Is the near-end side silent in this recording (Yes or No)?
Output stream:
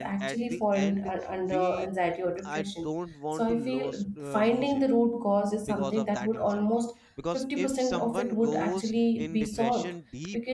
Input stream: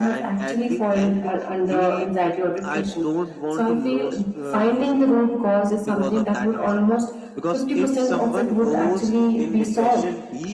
Yes